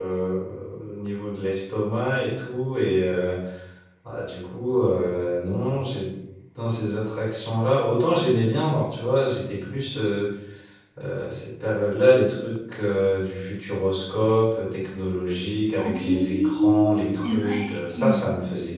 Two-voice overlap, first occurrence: 15.8 s

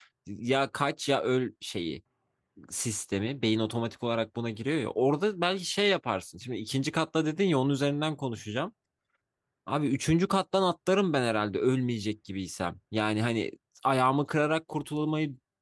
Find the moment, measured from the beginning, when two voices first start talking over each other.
none

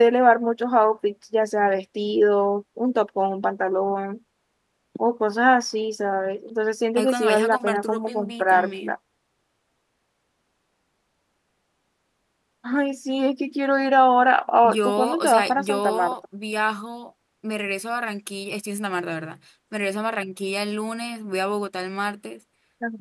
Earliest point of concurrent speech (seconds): 7.0 s

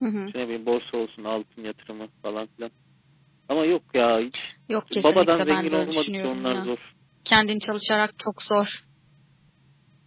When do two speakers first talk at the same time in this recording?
4.9 s

